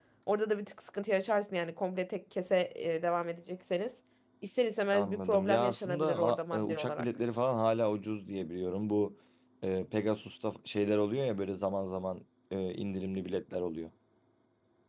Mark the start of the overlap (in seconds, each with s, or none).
4.9 s